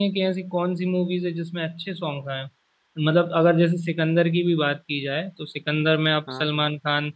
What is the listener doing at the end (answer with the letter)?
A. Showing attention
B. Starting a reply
A